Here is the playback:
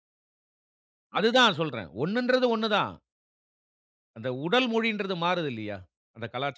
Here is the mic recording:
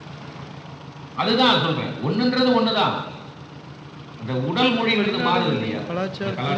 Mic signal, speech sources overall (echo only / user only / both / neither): both